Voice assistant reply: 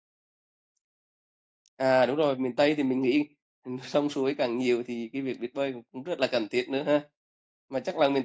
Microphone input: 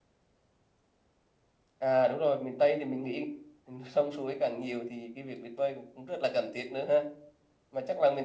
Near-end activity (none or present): none